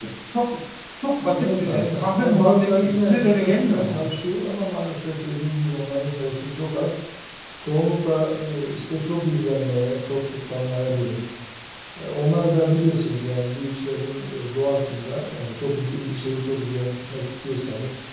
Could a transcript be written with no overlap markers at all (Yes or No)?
No